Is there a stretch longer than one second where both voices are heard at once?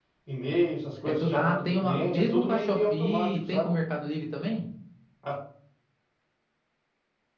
Yes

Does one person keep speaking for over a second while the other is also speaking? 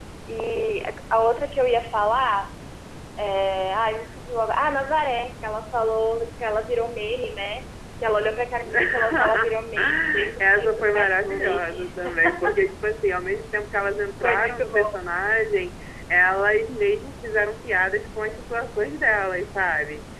Yes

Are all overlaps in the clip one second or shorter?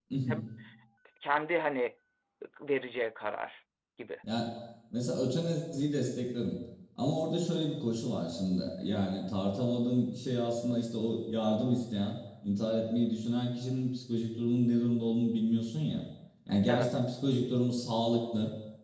Yes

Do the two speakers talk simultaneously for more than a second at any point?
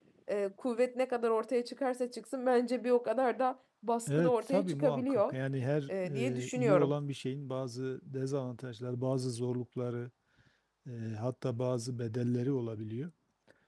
Yes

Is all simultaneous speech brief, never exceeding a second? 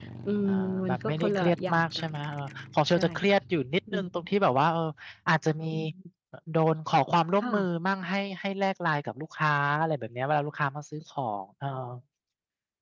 No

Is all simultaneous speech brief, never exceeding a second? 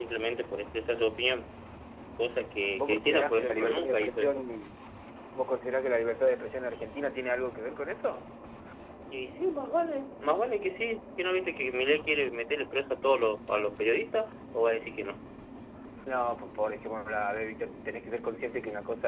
No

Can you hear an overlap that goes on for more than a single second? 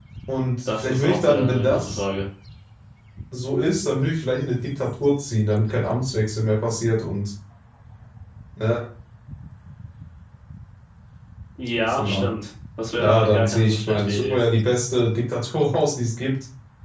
Yes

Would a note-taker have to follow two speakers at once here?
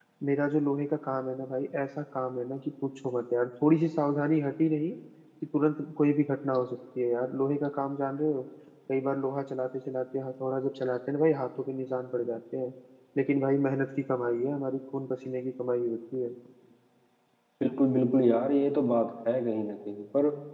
No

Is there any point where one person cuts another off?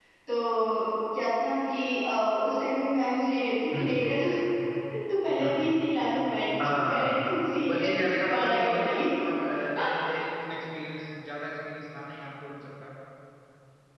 Yes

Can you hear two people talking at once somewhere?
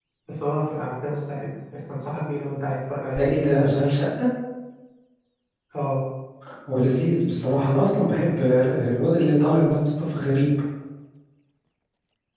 No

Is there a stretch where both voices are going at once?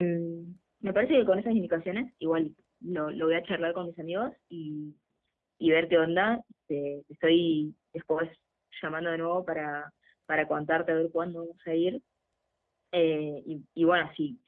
No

